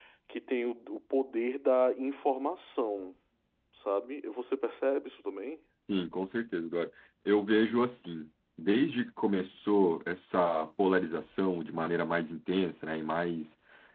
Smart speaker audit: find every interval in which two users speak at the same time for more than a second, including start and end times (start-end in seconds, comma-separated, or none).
none